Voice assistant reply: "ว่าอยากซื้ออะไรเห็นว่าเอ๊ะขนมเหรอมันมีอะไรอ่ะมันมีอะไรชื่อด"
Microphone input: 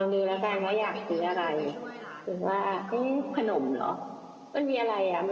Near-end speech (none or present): present